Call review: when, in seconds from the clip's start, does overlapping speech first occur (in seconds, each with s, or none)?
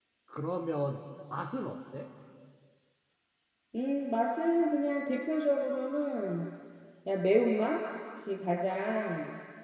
none